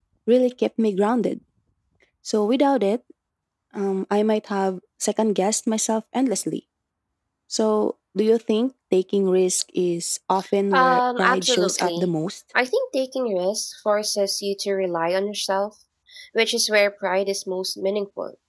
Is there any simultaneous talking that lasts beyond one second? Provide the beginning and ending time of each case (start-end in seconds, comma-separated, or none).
10.7-12.1